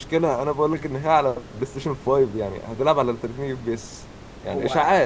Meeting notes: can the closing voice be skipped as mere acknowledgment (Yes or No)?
No